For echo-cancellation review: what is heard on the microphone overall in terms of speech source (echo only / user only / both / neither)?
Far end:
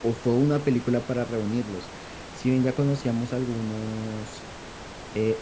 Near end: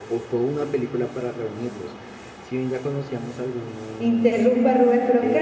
both